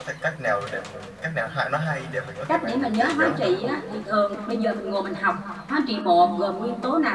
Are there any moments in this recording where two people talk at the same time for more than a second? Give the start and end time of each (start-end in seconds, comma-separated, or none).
2.5-3.7